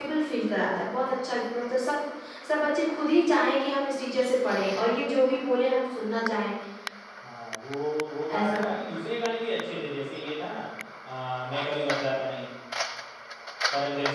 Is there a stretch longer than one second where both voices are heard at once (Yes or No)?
No